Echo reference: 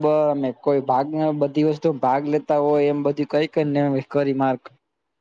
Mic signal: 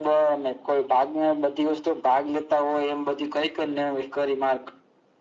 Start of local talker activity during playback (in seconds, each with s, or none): none